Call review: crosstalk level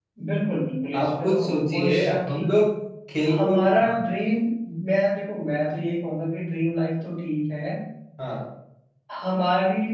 present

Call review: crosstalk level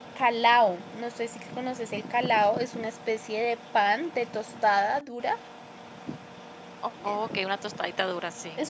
none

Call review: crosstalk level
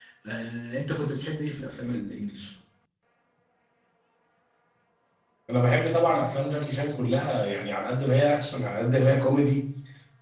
none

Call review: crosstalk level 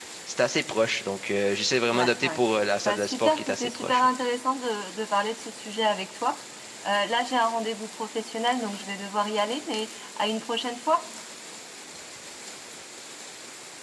present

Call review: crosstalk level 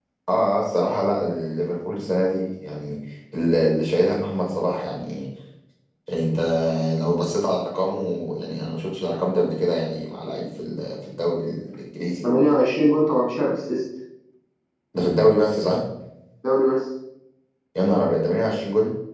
none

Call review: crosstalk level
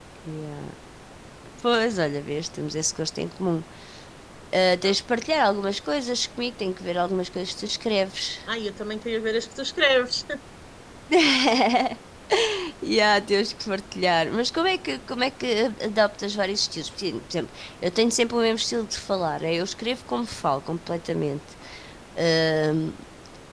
none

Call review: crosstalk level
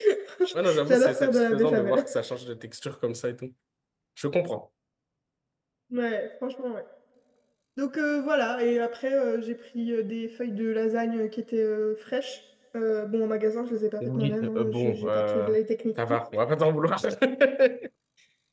present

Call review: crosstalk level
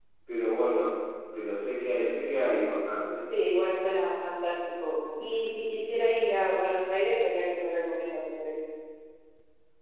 none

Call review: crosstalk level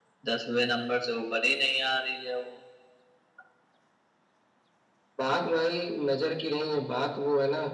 none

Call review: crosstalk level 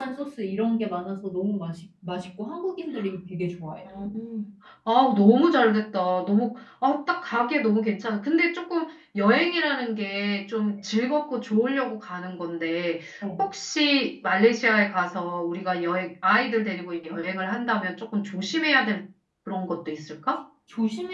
none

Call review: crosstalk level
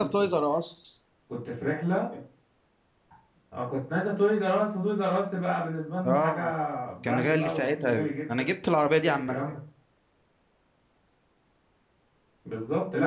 present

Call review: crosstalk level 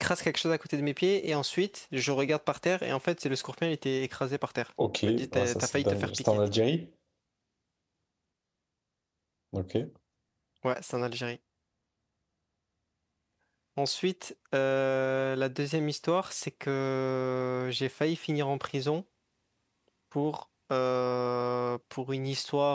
present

